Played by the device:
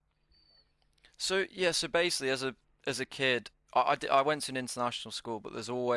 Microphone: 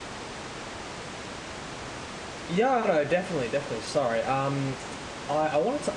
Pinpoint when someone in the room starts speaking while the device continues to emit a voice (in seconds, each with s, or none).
2.5 s